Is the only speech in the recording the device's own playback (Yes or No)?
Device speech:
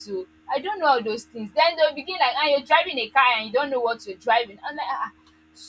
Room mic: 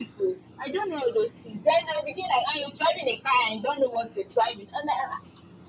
Yes